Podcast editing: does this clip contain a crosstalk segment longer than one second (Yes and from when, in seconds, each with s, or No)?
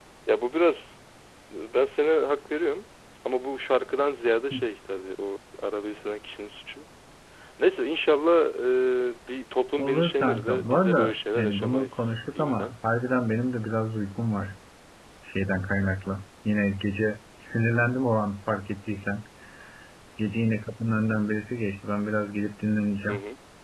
Yes, from 9.8 s